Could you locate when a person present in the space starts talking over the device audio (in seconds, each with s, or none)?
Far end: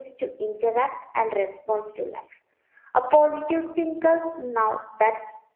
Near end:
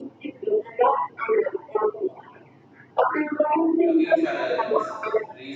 3.8 s